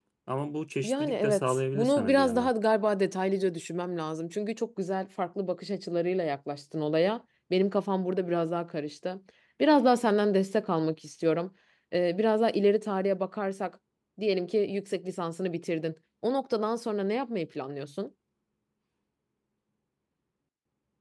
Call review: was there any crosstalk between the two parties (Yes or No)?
Yes